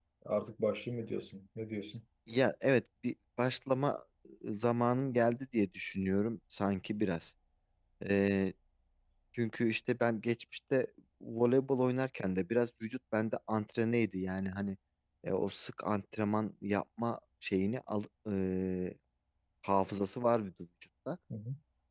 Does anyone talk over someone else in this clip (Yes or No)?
No